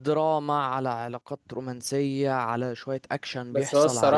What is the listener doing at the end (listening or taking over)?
taking over